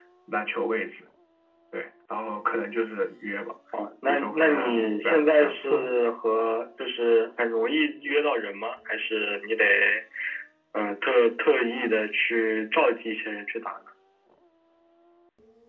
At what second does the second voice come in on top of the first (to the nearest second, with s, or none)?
4 s